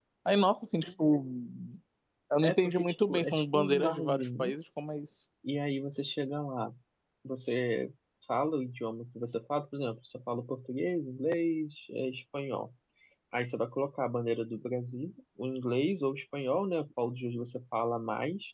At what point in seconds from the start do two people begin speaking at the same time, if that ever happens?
2 s

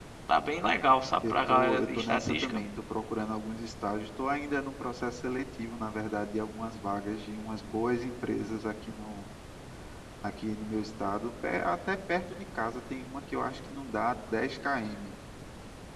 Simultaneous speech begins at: 1 s

